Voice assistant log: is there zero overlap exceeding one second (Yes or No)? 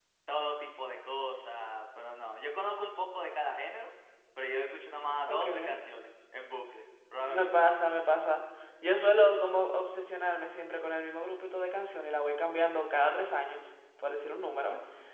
Yes